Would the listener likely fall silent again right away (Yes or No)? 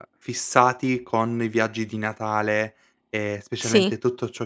Yes